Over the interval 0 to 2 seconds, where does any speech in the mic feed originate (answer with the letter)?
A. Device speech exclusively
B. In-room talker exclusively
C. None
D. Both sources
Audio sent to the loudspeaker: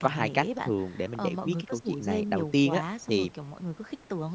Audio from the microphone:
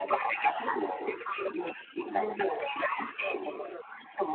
A